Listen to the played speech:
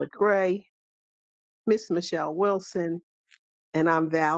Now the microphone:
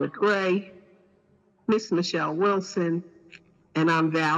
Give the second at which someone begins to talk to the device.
none

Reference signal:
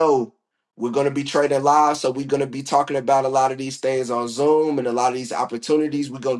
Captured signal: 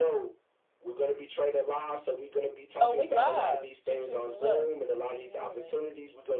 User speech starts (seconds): 2.8 s

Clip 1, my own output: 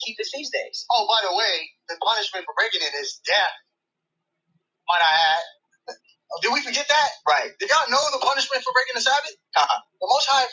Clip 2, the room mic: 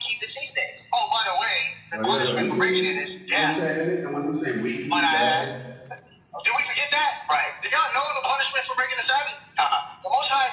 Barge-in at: 1.9 s

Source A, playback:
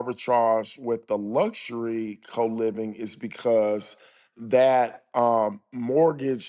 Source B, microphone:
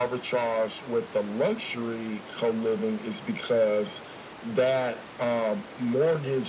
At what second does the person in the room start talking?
none

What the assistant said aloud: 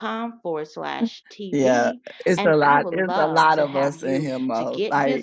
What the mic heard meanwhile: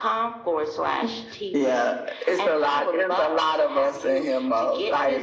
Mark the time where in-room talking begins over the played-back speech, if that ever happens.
none

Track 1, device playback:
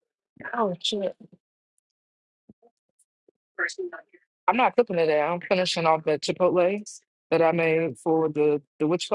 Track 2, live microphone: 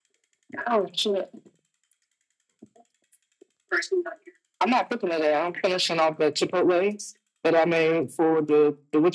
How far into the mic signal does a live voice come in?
none

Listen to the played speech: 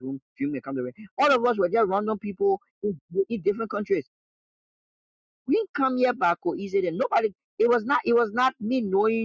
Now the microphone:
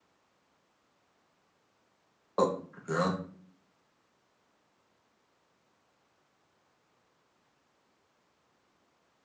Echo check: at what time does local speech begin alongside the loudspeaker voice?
2.4 s

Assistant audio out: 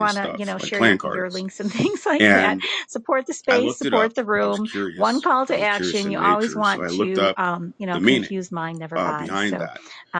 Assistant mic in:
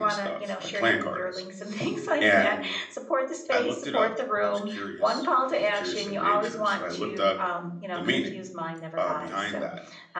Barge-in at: none

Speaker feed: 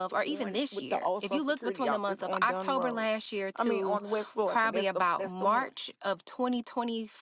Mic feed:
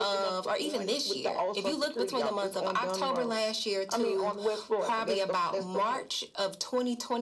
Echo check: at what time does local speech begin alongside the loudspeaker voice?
none

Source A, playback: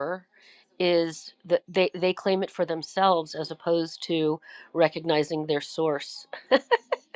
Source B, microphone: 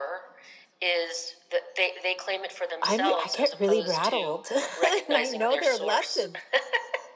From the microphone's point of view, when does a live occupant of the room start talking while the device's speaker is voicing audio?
2.8 s

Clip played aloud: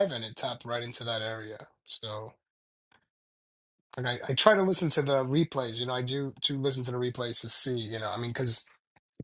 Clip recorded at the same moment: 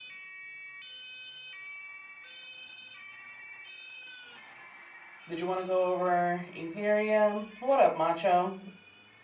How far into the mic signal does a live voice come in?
5.3 s

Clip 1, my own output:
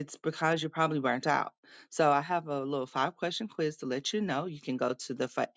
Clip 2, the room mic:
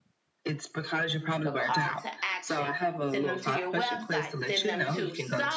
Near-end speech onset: 1.4 s

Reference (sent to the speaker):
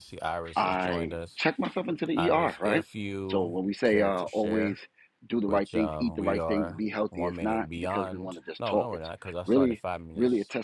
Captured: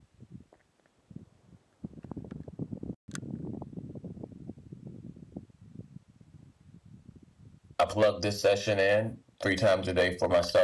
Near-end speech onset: 7.8 s

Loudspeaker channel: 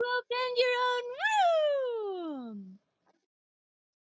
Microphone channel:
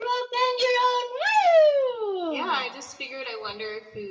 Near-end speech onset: 2.3 s

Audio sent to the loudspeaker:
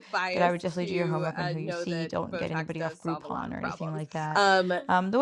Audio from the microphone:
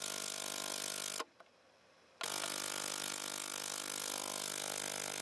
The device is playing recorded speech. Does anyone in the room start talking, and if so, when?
none

